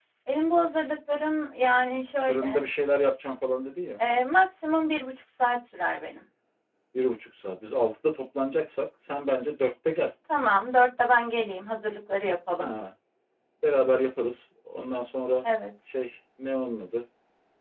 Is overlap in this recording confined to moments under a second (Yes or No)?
Yes